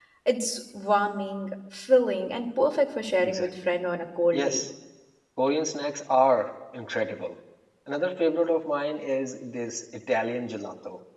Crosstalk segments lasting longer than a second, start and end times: none

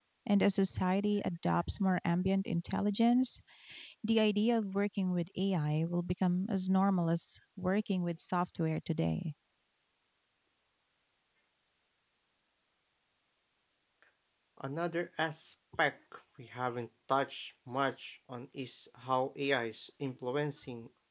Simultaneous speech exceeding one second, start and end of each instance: none

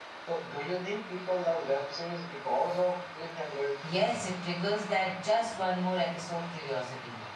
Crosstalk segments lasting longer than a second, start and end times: none

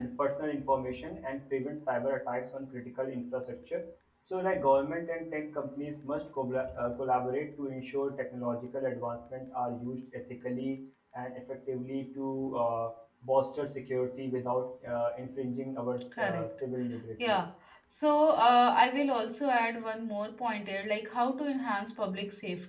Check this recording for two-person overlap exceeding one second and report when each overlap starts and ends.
none

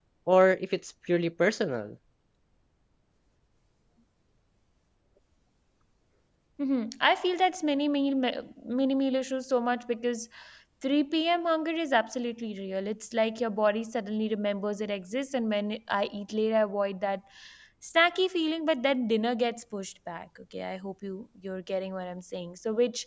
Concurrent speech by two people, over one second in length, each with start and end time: none

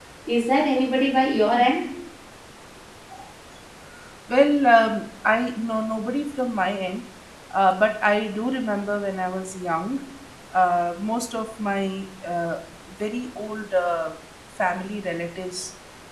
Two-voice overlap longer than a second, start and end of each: none

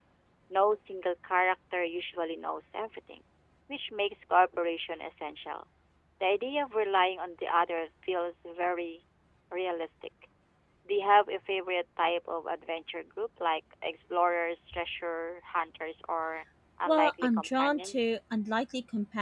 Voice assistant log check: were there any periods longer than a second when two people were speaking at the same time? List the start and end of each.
16.9-18.2

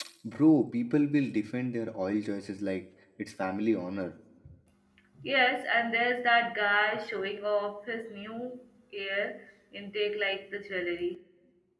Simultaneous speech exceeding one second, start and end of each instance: none

